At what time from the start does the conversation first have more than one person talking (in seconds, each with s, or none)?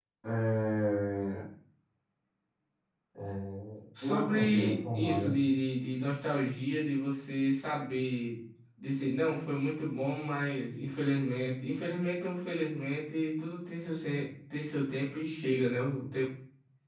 4.0 s